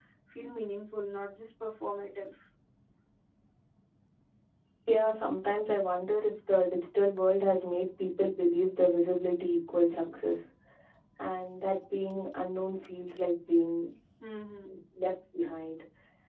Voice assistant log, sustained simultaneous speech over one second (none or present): none